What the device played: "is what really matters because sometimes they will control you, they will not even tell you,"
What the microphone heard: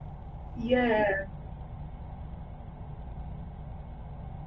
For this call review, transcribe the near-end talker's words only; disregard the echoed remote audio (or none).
Yes.